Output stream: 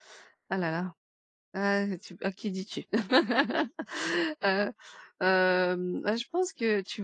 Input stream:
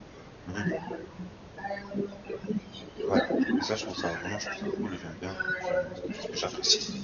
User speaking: Yes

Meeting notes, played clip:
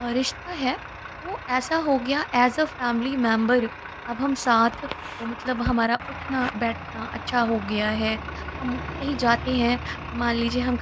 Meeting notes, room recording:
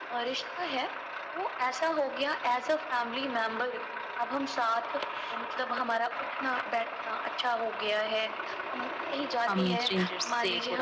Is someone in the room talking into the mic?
Yes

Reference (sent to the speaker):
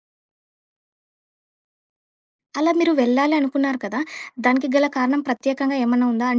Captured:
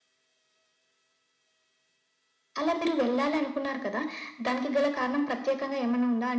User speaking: No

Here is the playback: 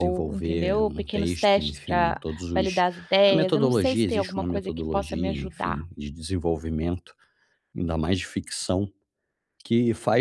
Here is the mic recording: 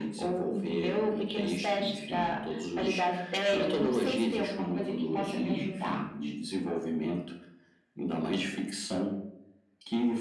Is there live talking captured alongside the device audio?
No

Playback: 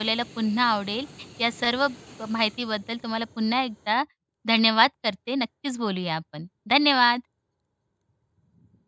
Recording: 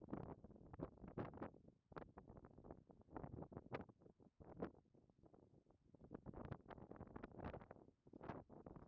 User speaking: No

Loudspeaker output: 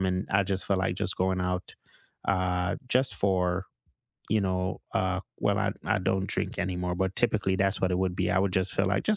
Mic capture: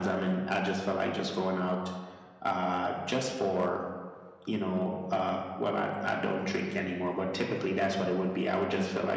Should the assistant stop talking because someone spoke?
No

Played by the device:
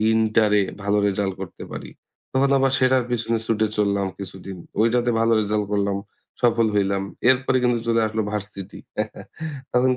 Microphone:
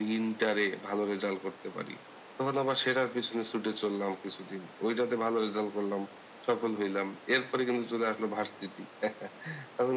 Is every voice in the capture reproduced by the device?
Yes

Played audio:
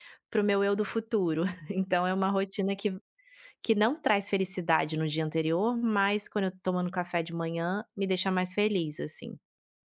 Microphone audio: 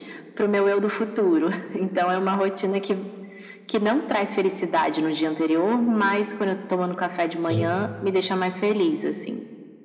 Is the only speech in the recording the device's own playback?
No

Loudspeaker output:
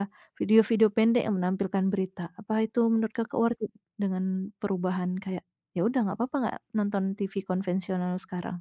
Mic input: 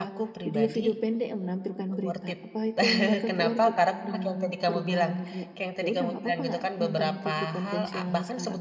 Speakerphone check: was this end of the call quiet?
No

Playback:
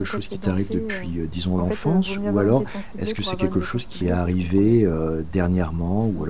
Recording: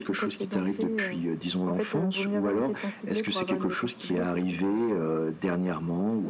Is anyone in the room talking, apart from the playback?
No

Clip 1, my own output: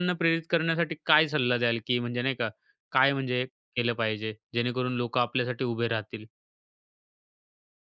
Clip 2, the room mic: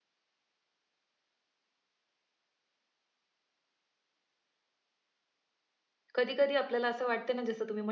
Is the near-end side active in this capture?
Yes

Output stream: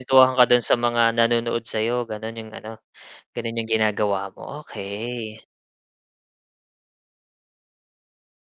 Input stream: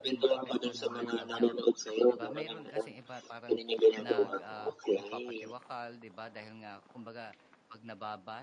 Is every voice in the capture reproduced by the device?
No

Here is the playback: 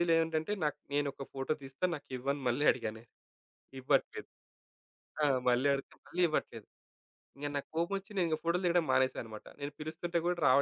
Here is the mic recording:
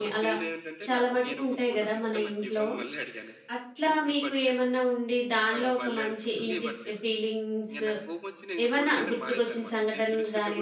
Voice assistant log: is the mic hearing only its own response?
No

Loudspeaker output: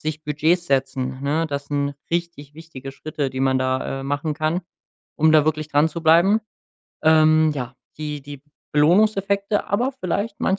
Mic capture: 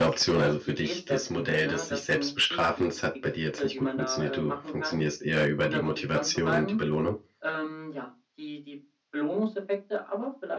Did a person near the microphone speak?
Yes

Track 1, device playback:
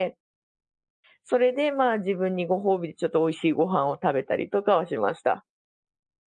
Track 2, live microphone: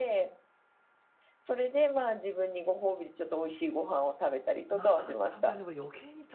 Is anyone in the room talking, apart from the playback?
Yes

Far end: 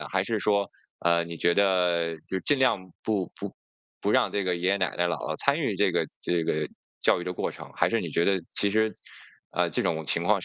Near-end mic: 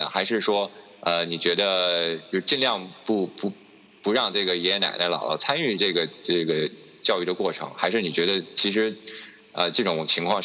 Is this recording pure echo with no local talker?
Yes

